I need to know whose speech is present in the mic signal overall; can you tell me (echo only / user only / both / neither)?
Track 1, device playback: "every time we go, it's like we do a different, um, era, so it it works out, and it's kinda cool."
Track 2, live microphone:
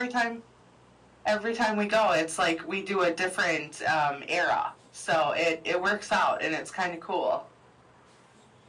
echo only